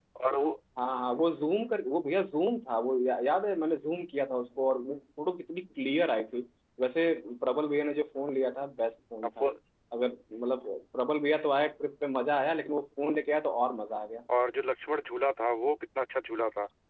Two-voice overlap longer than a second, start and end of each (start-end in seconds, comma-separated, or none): none